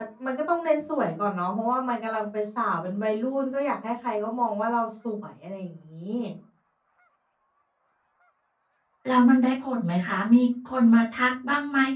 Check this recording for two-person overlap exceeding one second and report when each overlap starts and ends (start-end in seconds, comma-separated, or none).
none